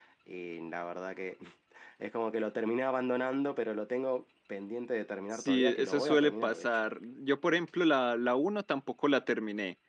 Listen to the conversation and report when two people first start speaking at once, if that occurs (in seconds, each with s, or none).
5.3 s